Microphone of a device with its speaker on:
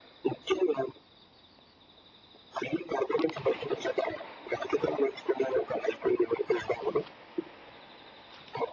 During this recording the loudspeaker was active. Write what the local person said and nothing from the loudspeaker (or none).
none